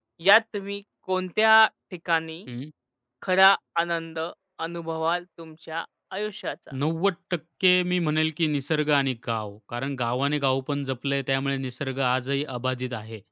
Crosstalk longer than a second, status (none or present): none